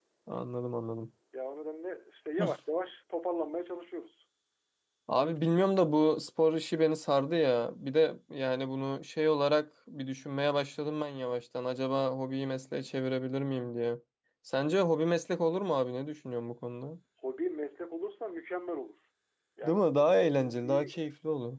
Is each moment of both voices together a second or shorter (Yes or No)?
No